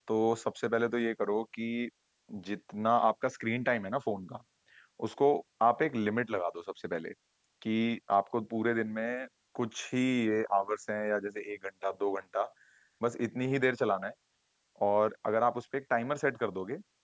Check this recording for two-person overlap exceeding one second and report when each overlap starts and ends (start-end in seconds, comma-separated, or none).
none